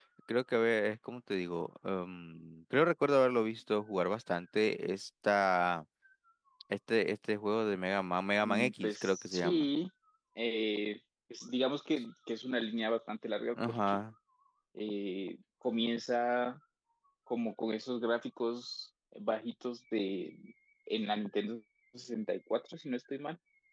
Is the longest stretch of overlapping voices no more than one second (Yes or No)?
No